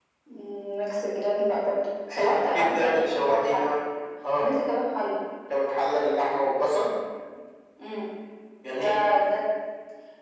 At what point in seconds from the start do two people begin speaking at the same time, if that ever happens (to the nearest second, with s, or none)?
2 s